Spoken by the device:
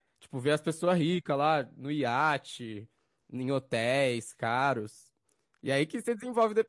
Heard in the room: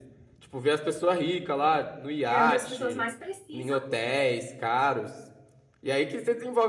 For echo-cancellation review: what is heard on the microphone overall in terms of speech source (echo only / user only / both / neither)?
both